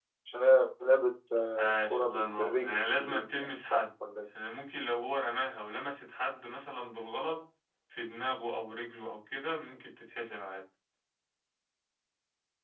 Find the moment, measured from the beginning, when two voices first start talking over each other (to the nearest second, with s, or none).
2 s